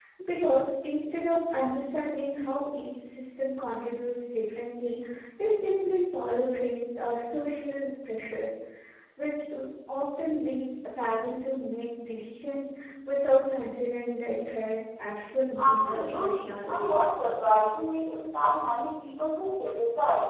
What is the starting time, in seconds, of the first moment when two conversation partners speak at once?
15.6 s

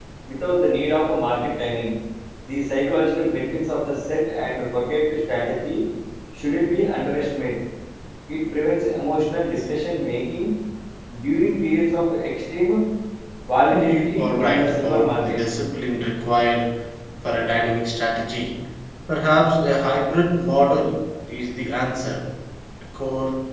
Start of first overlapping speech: 13.7 s

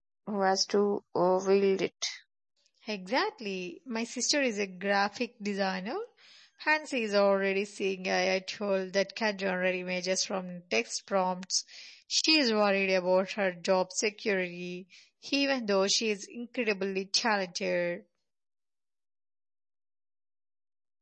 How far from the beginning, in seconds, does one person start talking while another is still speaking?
none

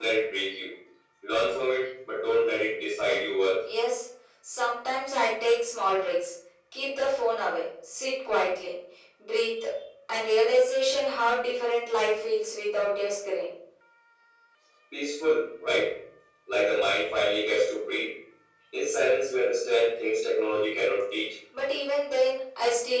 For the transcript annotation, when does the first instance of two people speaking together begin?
none

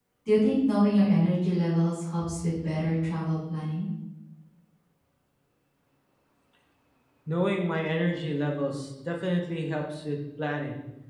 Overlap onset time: none

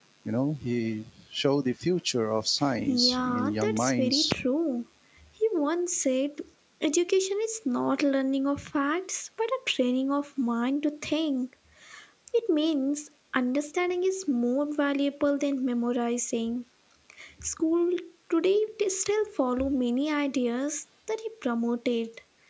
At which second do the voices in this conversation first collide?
2.6 s

